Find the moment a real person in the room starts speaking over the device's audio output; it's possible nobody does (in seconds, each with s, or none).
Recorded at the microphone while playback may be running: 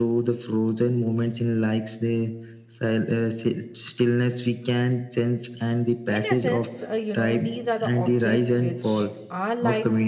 6.1 s